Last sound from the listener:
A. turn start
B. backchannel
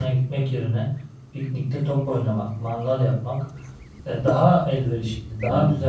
B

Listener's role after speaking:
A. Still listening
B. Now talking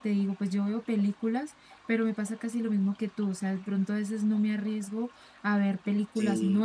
A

